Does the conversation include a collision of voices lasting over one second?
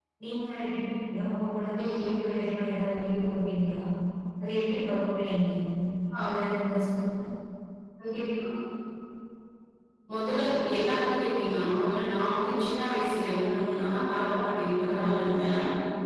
No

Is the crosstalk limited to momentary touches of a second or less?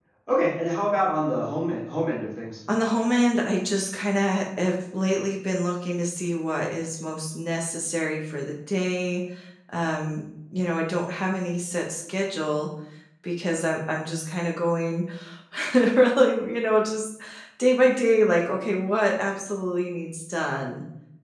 Yes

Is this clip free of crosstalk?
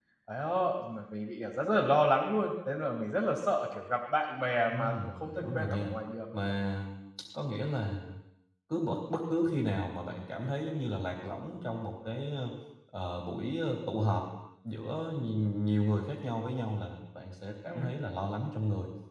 No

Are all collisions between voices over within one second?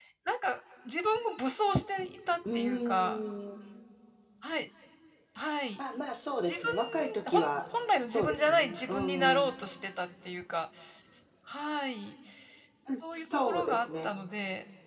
No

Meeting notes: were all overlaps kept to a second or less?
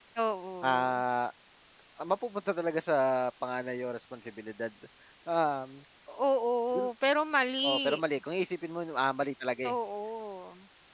Yes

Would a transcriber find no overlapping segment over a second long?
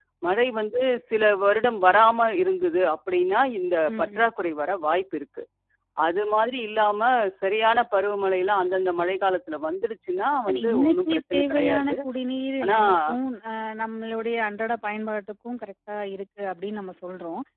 No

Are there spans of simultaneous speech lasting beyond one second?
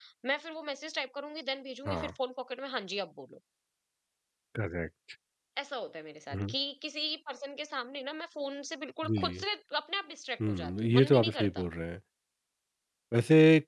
Yes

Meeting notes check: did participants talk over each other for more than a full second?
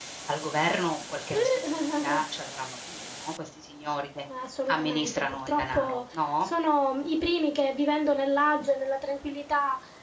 Yes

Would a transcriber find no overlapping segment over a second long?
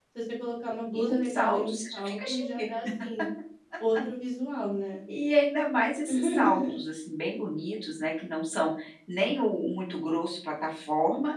No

